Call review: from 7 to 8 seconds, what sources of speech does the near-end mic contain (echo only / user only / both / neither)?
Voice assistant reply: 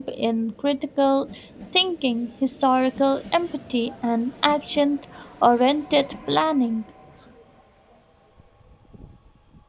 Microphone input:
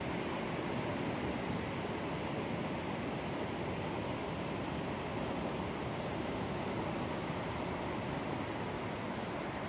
neither